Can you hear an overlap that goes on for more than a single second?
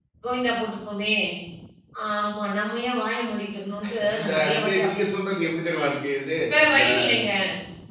Yes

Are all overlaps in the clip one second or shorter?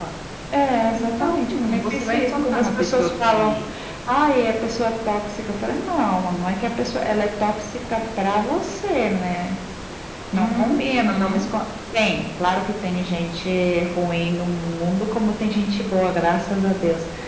No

